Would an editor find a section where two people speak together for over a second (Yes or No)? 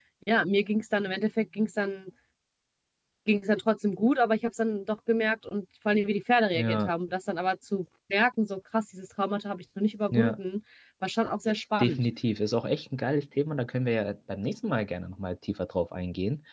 No